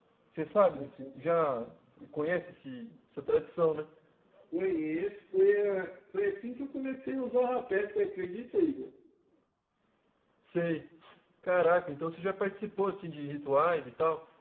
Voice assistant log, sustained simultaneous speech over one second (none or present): none